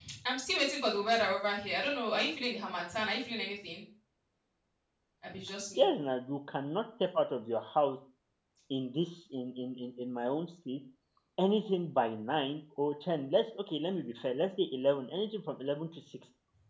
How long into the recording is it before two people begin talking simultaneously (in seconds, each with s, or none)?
none